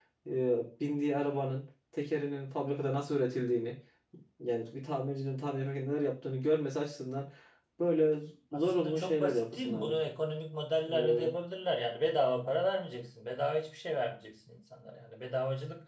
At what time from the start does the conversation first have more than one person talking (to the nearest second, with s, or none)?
9 s